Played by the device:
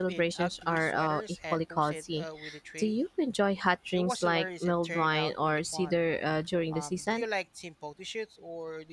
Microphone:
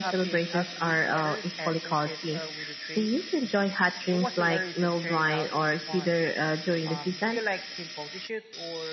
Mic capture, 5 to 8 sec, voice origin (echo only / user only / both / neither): echo only